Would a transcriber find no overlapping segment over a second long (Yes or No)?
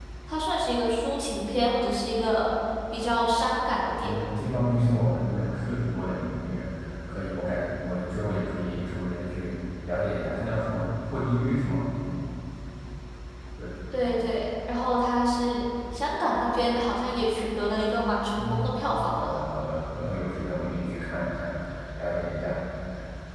Yes